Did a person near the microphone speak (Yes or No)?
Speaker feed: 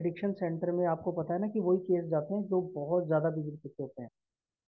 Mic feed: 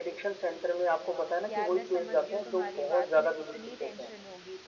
Yes